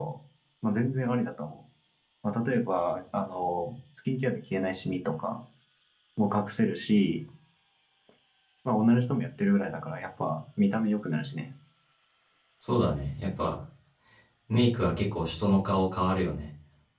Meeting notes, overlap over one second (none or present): none